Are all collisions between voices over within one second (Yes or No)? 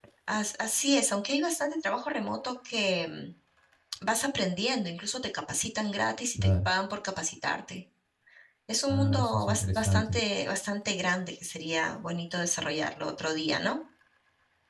No